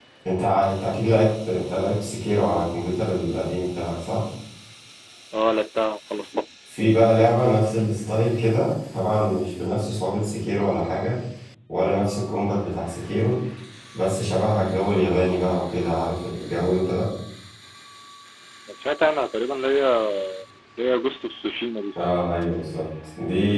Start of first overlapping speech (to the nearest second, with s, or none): none